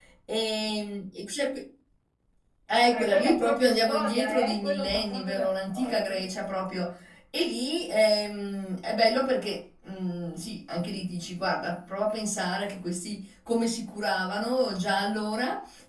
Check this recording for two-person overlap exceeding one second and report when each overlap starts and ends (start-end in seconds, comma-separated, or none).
2.9-6.3